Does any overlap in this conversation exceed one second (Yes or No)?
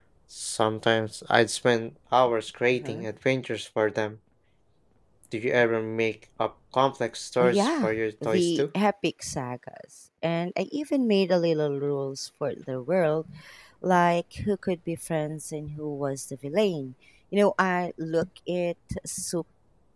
Yes